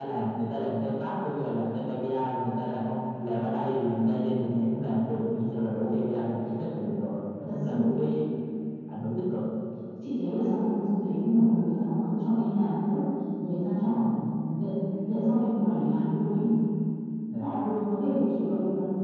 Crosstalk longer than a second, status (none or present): none